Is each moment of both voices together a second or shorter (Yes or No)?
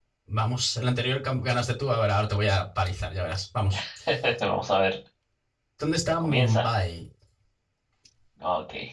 Yes